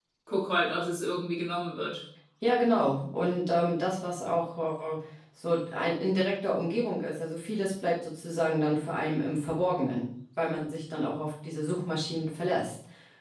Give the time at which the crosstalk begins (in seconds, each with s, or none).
none